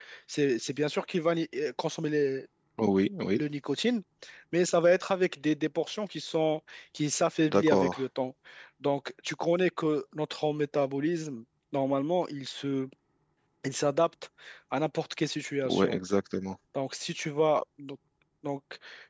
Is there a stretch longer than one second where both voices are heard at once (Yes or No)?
No